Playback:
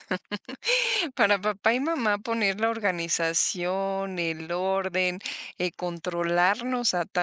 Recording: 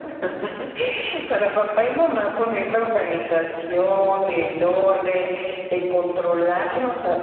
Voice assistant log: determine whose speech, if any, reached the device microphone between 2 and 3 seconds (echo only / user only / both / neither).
echo only